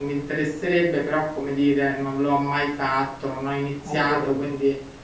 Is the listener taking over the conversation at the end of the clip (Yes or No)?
No